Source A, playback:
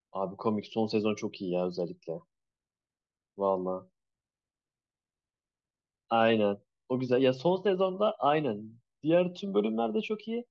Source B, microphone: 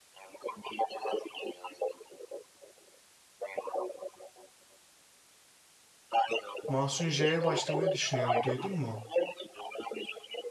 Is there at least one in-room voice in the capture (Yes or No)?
Yes